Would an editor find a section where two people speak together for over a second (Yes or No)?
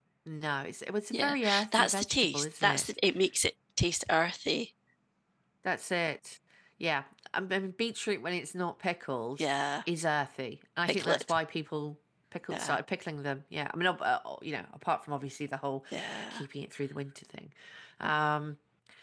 Yes